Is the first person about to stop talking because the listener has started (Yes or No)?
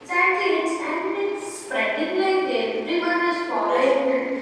Yes